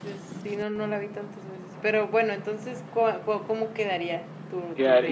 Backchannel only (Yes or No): No